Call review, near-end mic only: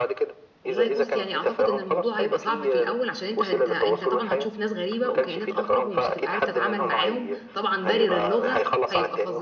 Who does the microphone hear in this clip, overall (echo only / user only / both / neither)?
both